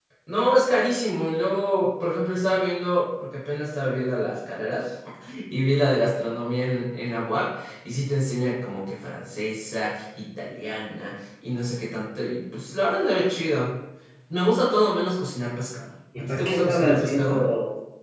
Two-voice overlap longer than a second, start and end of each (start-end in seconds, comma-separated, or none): 16.2-17.4